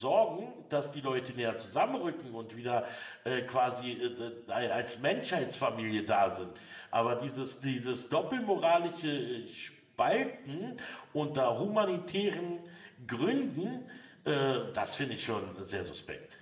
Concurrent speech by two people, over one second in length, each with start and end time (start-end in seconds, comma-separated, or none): none